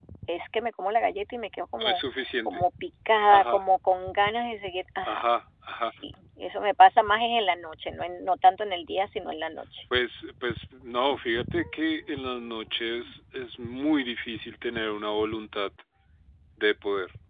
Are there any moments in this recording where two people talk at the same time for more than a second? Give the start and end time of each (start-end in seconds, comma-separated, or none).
none